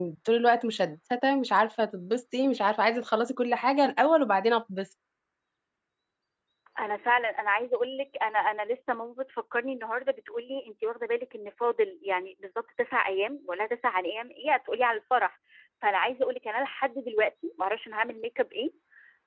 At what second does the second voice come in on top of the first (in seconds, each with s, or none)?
none